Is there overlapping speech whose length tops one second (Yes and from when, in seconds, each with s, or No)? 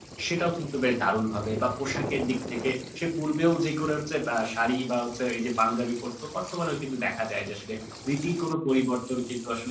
No